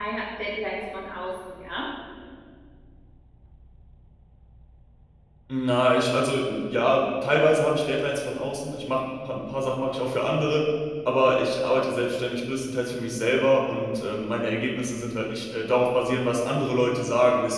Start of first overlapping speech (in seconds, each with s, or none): none